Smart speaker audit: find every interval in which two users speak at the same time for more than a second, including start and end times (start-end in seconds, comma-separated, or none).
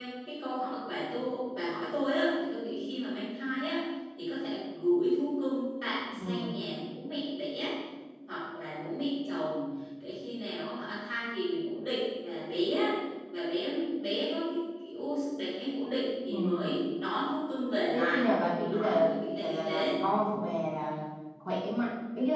18.7-20.0